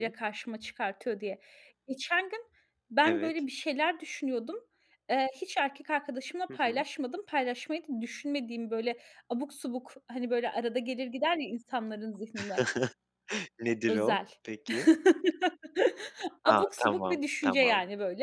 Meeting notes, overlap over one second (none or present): present